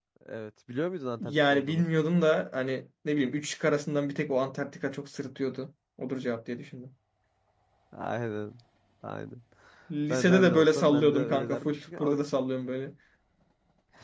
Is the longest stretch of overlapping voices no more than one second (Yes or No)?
No